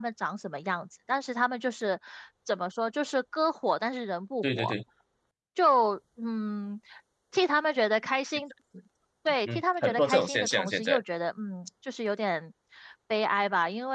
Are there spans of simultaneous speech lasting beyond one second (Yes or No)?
Yes